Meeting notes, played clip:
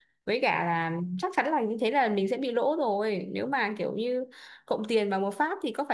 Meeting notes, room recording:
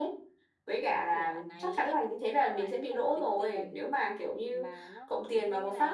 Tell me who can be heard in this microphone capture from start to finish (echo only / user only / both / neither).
both